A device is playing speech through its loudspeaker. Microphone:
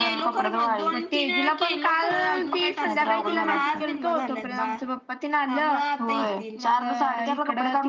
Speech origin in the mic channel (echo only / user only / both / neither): both